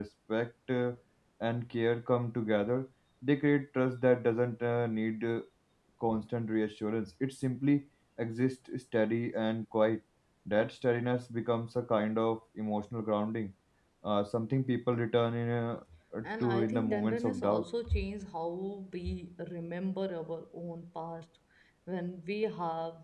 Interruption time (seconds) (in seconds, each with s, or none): 16.4 s